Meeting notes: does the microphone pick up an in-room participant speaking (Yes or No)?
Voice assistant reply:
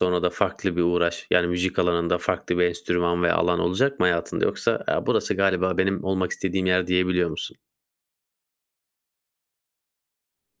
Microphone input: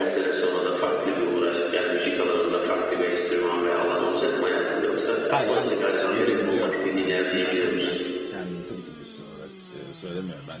Yes